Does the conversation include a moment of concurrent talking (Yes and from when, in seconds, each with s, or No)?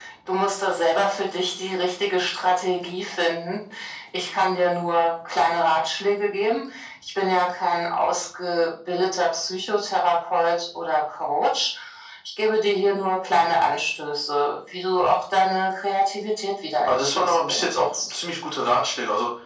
Yes, from 16.8 s